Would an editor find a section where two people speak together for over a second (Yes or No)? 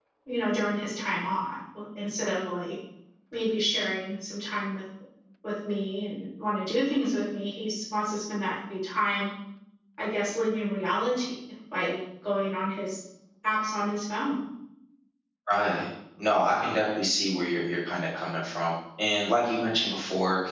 No